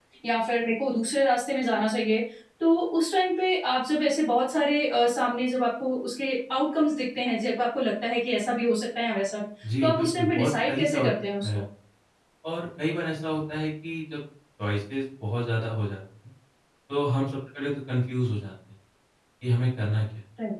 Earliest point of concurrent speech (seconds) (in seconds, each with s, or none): 9.6 s